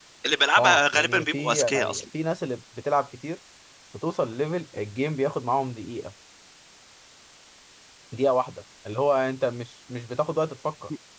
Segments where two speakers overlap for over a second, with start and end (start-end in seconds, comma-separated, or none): 0.6-2.0